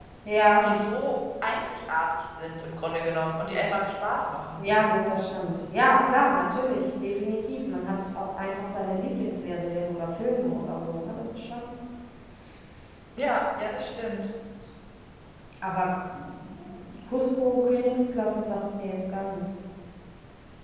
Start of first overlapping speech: none

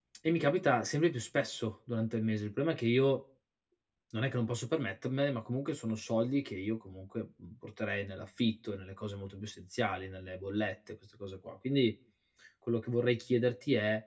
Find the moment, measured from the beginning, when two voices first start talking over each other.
none

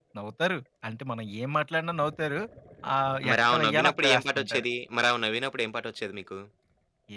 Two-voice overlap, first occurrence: 3.3 s

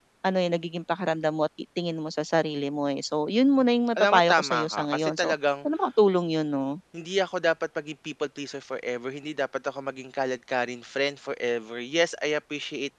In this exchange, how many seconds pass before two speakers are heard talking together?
4.0 s

